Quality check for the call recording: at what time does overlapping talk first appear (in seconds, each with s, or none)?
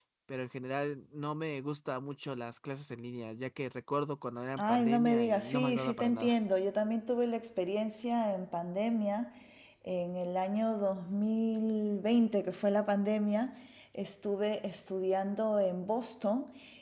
4.6 s